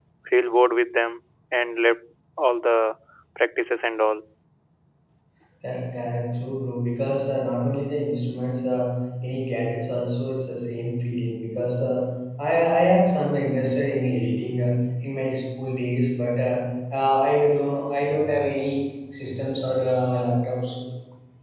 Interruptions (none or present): none